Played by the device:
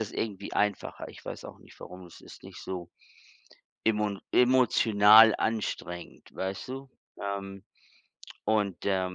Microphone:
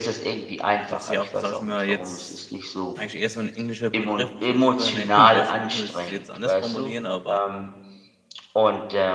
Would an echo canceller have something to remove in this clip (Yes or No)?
Yes